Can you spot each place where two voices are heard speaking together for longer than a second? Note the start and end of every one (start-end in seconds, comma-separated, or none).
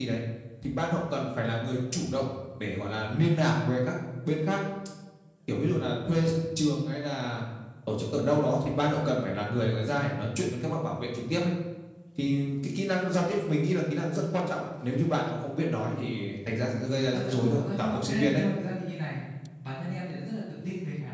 17.1-18.4